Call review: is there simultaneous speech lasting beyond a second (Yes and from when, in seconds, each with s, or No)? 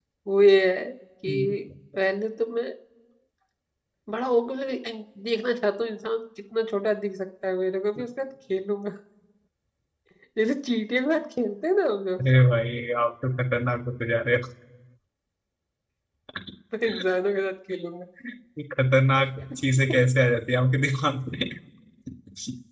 No